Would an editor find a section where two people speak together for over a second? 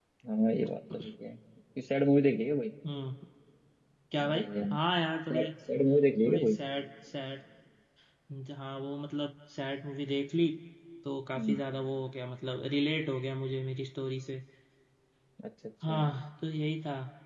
No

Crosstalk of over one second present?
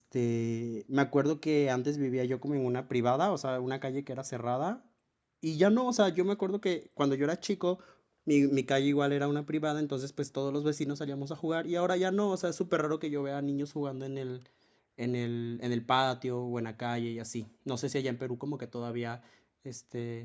No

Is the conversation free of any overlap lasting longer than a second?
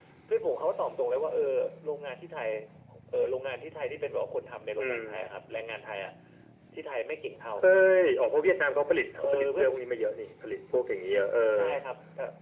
Yes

